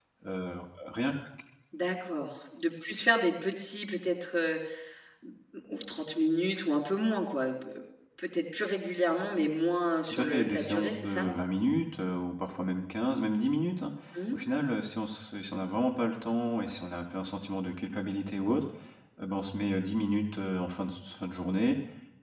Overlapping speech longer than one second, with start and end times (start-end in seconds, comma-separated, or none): 10.1-11.3